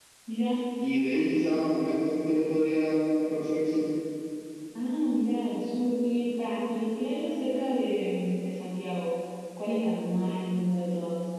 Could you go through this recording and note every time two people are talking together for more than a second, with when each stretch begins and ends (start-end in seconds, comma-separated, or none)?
none